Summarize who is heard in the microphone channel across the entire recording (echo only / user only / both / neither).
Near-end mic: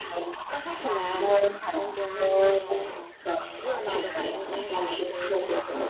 both